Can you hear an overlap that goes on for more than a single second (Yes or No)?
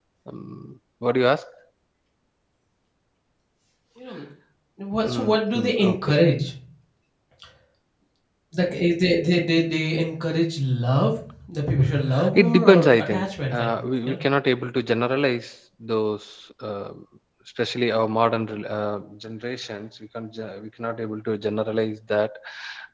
Yes